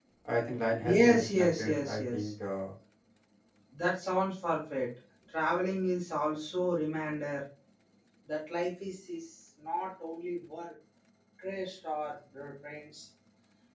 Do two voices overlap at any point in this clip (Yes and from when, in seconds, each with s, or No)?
Yes, from 0.8 s